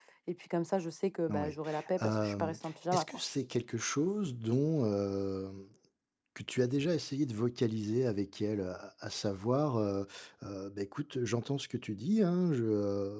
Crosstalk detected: Yes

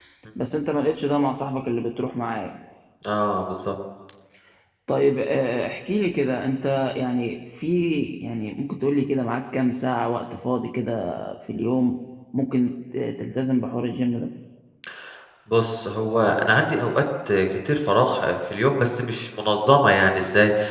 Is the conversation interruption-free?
Yes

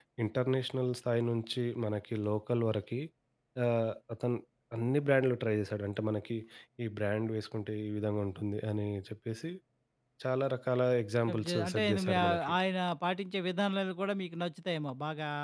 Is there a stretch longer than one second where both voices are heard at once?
Yes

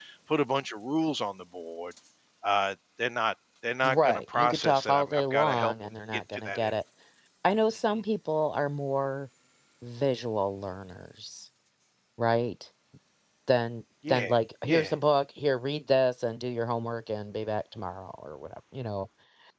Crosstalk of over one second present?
Yes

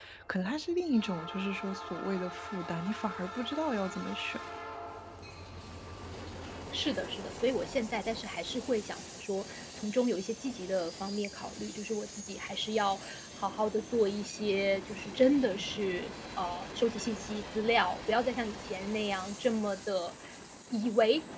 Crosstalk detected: No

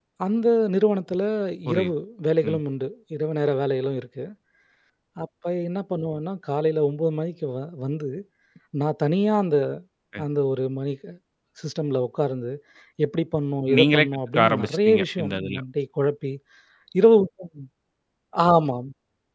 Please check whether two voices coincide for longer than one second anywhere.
Yes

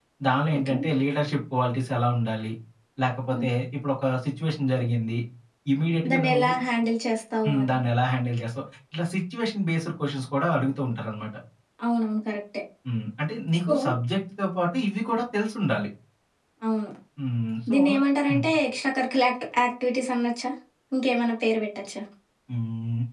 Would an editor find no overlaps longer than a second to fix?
Yes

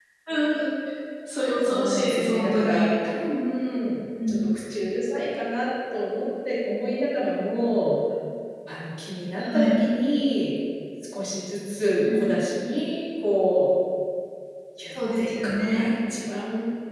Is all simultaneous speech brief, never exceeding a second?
No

